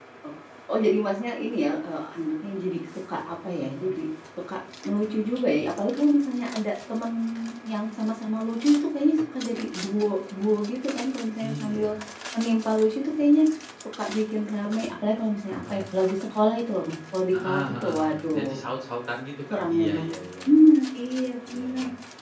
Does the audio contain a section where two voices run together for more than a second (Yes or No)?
Yes